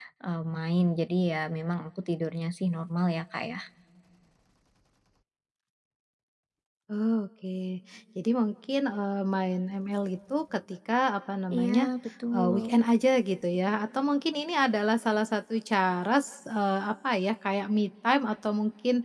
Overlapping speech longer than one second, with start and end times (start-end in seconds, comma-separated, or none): none